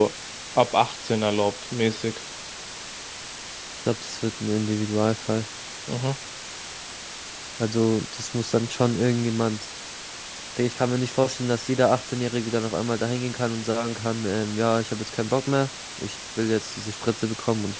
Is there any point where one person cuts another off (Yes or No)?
No